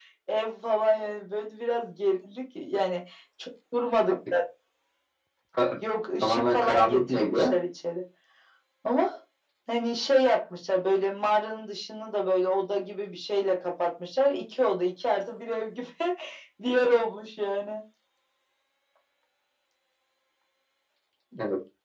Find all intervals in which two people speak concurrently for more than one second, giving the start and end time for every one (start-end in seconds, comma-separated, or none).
6.2-7.6